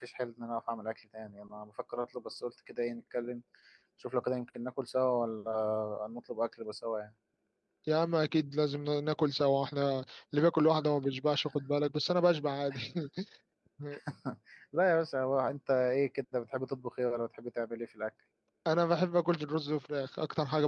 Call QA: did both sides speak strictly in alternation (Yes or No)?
Yes